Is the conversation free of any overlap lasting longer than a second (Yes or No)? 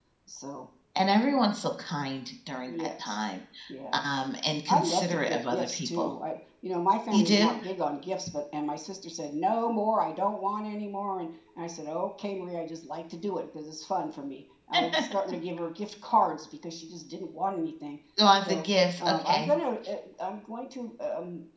No